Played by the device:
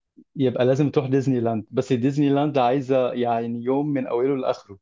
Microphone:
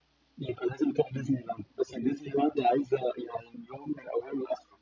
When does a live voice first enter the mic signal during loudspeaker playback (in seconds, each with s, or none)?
none